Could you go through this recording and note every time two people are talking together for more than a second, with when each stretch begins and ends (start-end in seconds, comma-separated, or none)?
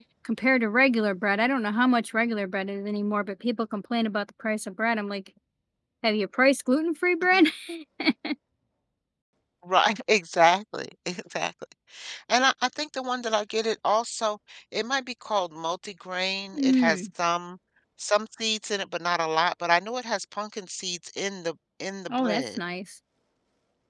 none